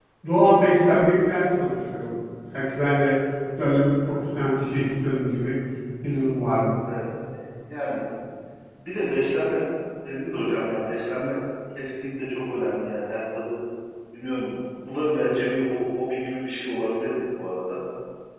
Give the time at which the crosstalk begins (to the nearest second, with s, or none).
none